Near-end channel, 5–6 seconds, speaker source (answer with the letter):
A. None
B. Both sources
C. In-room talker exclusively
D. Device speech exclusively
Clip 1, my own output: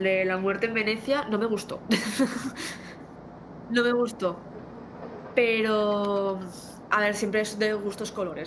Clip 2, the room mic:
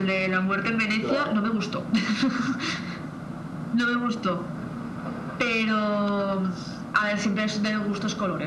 D